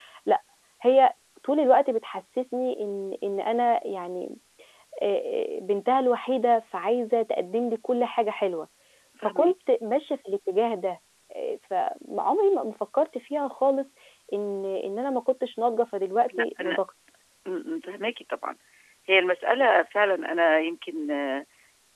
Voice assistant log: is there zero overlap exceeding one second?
Yes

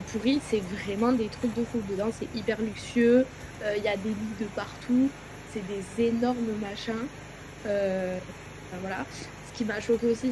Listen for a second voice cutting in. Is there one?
No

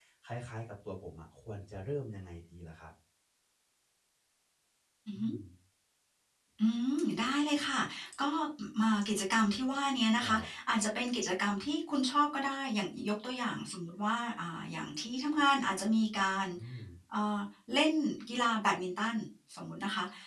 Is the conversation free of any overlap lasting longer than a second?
Yes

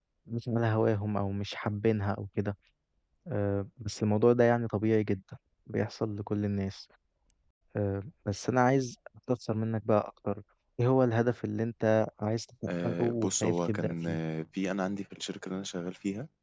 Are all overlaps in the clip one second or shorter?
No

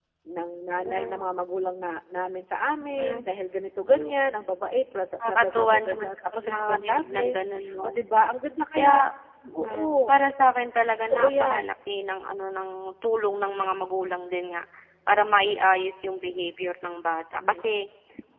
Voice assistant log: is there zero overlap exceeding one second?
No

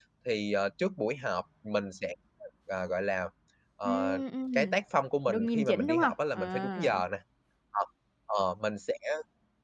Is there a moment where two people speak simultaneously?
Yes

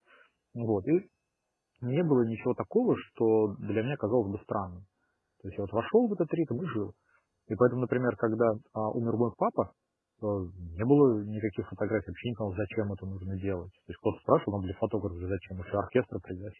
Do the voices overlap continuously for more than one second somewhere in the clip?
No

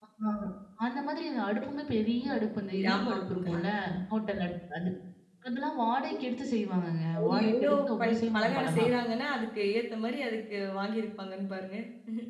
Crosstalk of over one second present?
Yes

